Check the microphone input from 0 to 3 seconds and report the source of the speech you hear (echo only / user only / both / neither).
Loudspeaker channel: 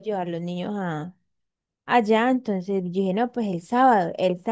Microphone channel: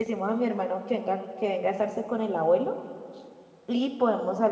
user only